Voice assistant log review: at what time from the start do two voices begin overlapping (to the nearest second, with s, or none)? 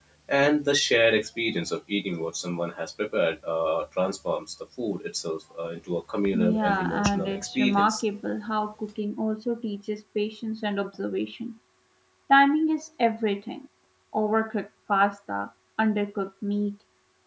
6 s